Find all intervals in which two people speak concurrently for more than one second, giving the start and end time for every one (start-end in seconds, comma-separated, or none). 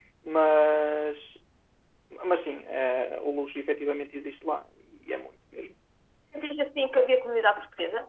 none